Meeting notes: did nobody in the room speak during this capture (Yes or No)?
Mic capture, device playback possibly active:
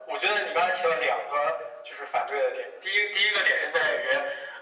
Yes